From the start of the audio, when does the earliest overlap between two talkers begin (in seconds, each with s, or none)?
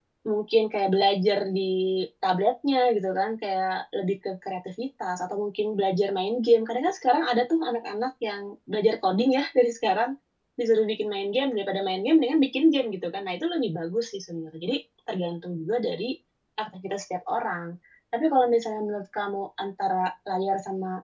none